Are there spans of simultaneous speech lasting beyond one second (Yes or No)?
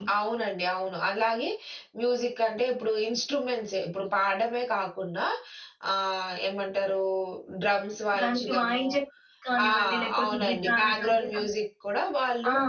Yes